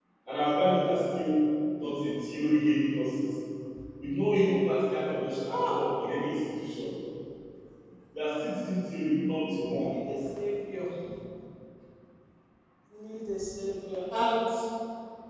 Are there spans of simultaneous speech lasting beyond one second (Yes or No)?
No